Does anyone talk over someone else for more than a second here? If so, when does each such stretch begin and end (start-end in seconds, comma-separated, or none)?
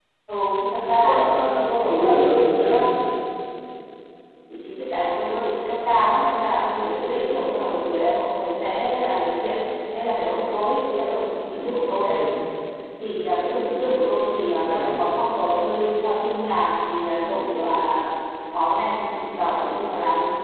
1.0-2.8